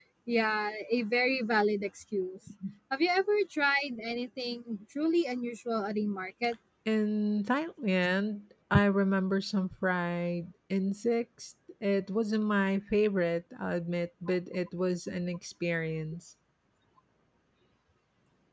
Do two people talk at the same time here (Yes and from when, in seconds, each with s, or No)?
No